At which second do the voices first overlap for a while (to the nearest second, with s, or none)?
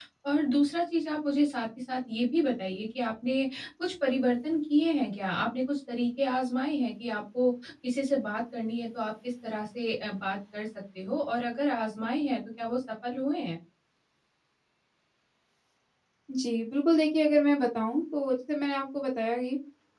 none